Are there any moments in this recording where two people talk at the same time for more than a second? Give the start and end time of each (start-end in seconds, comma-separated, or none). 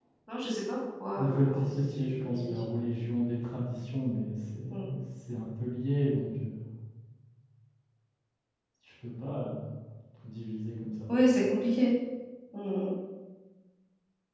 1.2-2.5